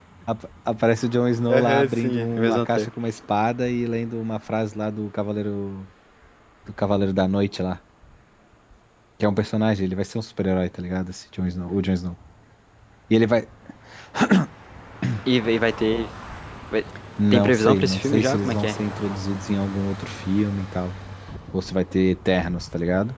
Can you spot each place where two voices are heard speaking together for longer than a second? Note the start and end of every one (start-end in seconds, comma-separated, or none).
1.5-2.9, 17.3-18.8